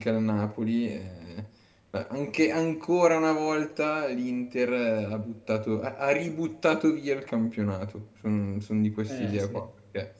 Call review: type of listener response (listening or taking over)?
listening